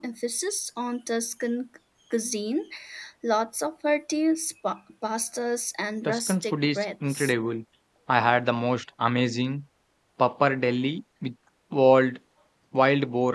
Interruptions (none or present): present